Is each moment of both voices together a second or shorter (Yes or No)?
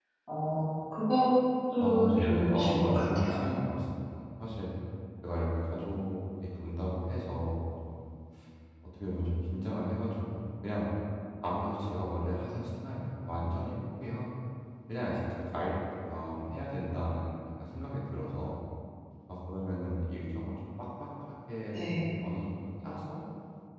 No